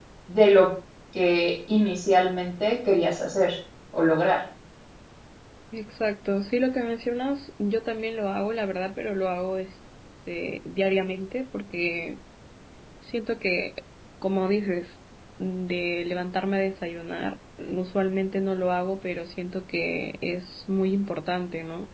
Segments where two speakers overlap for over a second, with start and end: none

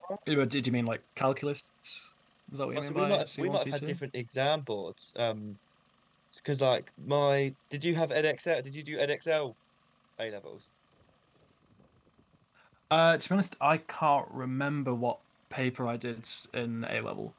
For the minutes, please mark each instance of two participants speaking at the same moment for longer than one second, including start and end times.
2.8-4.0

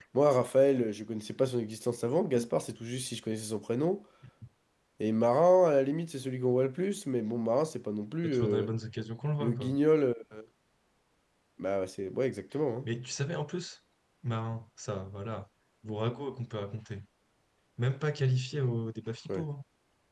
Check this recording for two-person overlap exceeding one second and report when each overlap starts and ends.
none

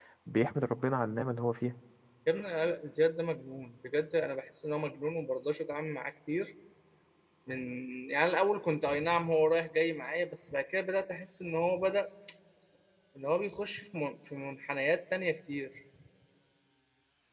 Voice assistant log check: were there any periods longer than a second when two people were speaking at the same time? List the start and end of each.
none

